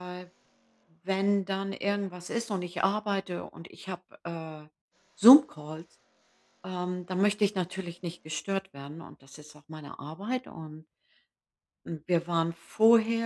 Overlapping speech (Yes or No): No